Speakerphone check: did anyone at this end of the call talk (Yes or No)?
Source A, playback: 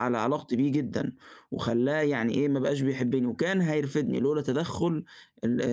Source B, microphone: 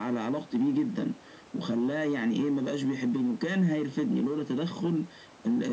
No